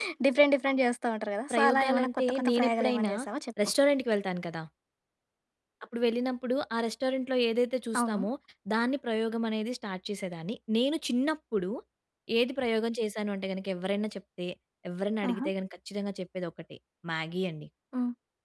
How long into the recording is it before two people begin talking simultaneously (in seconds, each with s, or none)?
1.5 s